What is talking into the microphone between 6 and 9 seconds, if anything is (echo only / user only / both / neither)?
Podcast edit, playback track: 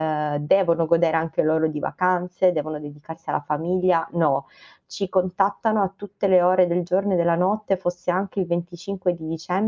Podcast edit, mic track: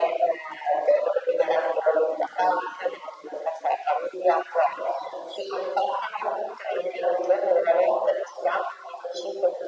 echo only